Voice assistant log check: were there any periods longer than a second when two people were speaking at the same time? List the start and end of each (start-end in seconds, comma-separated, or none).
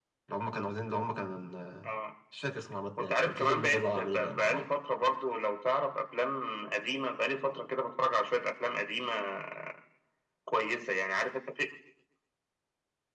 3.0-4.6